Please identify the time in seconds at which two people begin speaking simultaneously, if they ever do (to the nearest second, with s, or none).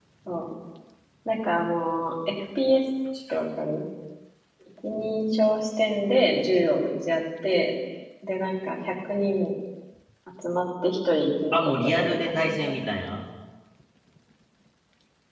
12 s